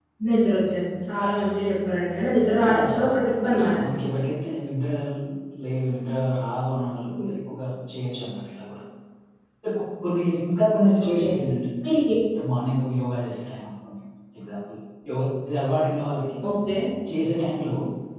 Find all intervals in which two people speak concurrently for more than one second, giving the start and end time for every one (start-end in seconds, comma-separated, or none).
2.7-3.9